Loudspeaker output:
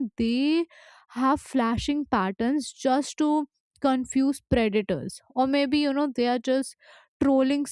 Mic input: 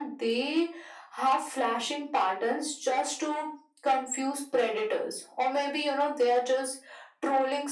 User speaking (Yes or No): No